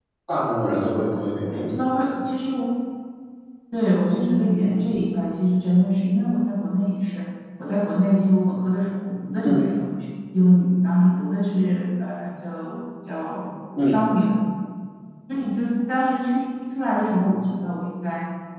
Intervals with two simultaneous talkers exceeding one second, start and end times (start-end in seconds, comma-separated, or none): none